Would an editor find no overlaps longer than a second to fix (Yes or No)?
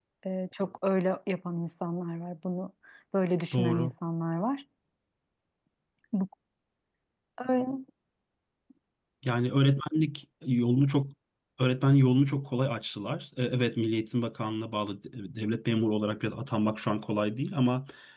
Yes